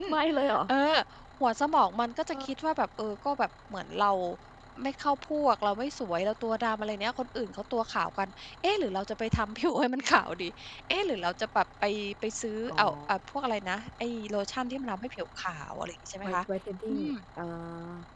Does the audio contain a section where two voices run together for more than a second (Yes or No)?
No